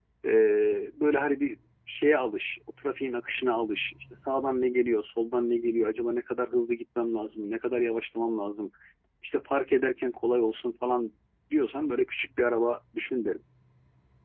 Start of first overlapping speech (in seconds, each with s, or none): none